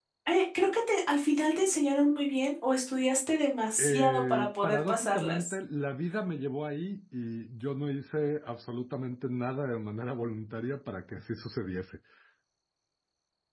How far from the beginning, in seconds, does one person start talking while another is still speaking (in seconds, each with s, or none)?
3.8 s